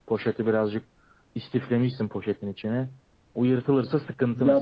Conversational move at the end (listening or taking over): taking over